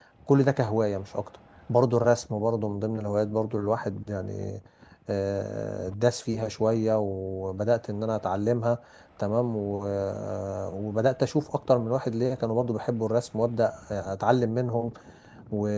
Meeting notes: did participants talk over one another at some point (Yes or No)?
No